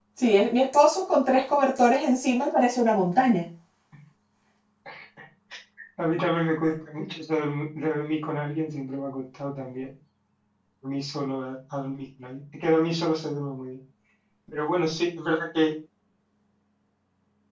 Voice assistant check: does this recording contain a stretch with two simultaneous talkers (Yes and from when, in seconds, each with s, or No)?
No